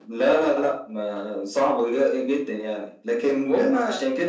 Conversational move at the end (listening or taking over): listening